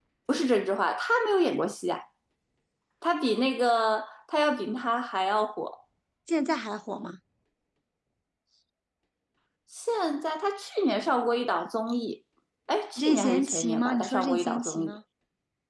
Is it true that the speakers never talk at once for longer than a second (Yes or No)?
No